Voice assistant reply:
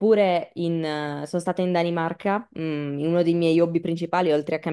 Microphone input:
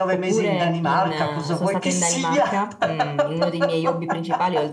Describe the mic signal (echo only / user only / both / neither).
both